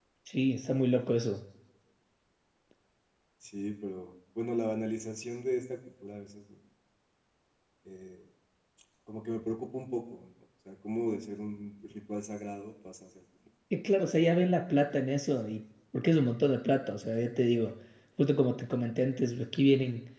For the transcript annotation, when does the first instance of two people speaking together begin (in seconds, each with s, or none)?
none